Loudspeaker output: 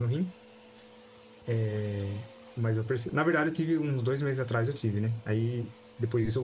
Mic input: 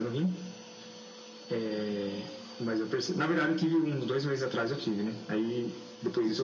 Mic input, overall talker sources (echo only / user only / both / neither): echo only